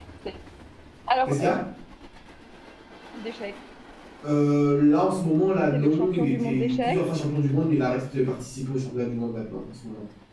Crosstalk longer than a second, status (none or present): present